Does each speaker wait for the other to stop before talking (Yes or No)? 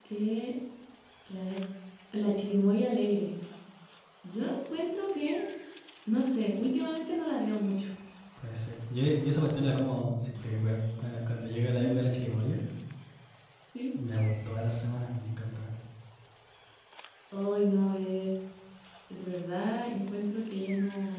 Yes